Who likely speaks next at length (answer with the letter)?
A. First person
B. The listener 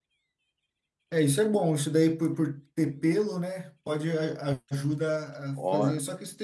A